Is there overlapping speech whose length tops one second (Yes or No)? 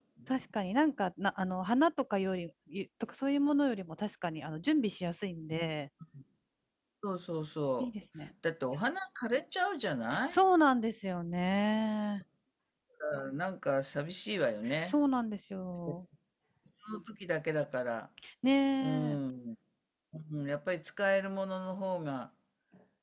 No